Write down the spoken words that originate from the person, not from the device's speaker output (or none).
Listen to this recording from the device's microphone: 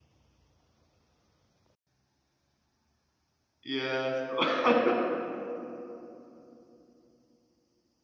yeah, so